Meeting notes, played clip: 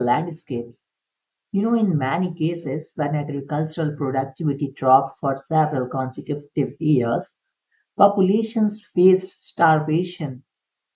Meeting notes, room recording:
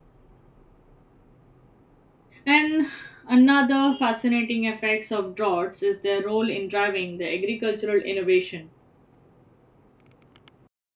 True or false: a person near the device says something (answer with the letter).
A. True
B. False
A